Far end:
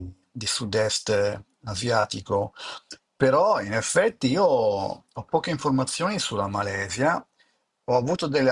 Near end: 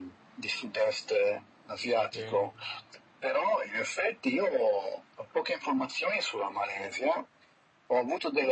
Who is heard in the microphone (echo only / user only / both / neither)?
both